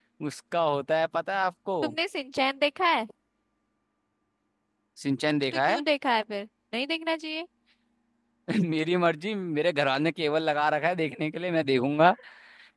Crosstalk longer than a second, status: none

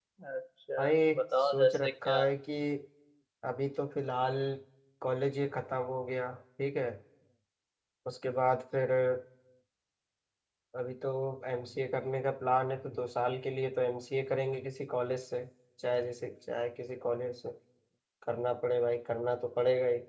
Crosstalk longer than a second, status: present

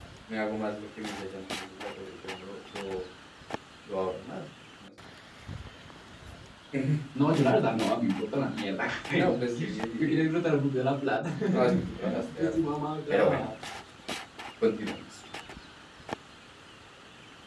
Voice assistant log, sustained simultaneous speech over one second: present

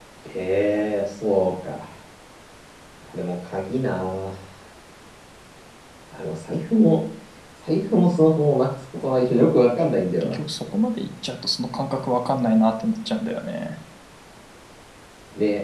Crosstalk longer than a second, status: none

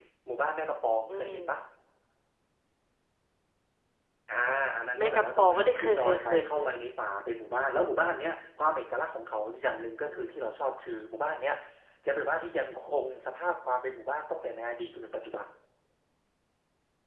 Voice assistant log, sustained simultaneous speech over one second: present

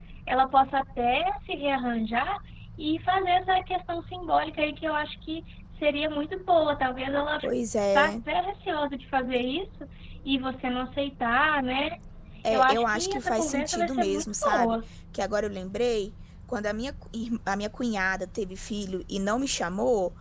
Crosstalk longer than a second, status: present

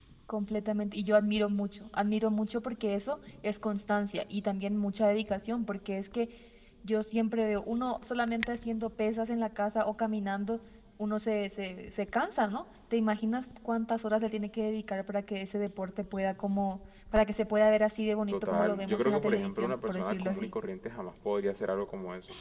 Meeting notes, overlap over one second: present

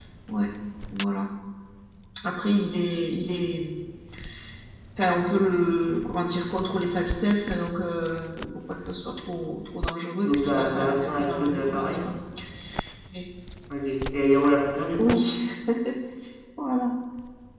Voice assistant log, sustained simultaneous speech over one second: present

